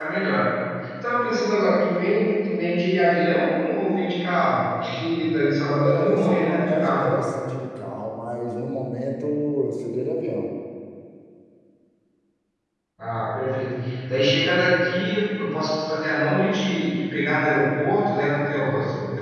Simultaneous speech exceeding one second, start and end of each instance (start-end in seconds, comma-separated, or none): 5.8-7.2